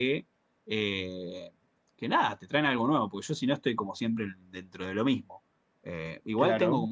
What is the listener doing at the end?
listening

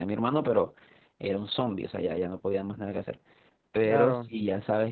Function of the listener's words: listening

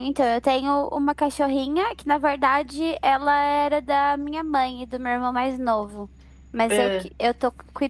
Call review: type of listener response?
listening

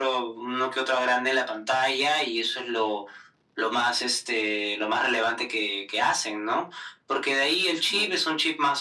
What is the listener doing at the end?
listening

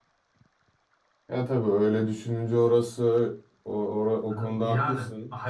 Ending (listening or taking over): taking over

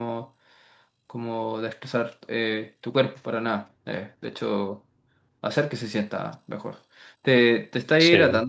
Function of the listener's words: listening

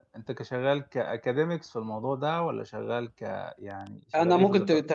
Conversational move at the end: taking over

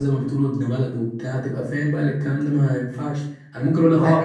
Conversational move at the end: listening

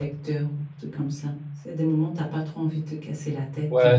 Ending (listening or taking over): taking over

